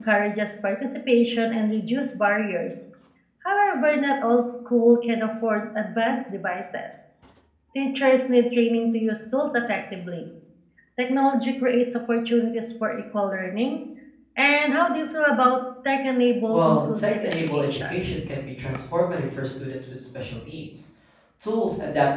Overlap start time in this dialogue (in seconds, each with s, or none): 16.5 s